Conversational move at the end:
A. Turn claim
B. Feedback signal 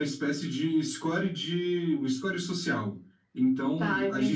B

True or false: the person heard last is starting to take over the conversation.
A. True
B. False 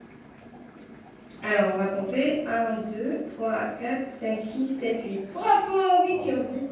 A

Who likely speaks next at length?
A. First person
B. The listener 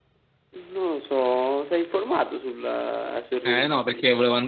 B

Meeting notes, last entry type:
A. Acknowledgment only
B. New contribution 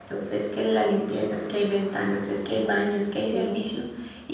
A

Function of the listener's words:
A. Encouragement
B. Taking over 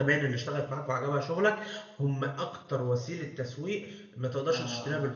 B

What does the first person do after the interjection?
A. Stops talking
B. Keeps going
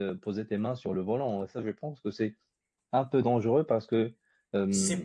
A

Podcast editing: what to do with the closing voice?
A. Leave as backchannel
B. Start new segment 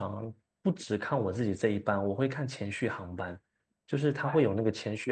A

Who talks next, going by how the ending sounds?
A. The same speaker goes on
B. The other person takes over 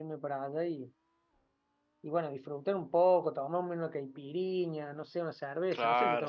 B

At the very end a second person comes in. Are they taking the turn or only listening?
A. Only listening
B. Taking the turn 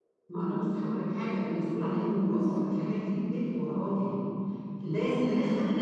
B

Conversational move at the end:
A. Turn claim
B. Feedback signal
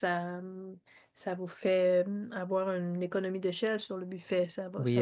A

